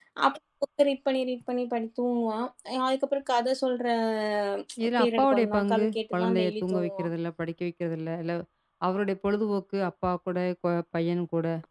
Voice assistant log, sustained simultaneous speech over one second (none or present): present